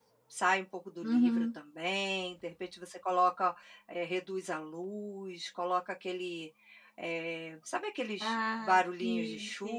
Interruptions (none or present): present